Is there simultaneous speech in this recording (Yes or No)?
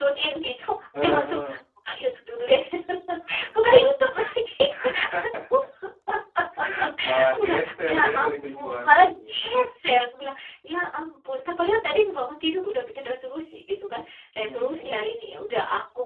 Yes